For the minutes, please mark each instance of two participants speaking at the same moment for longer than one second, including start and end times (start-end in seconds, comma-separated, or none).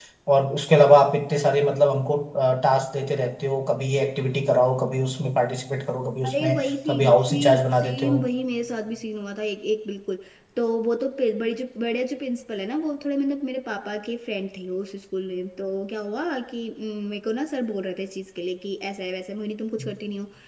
6.3-8.2